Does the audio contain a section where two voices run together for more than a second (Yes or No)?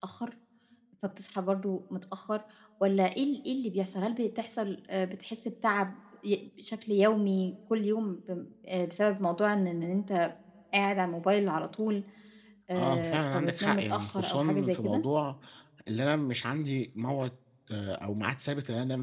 Yes